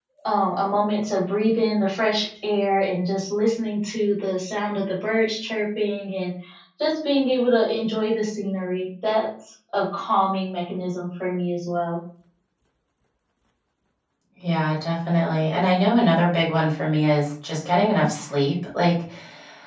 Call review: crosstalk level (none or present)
none